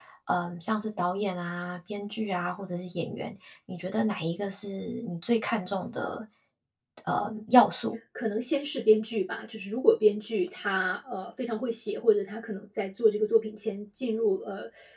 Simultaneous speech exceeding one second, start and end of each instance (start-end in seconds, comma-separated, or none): none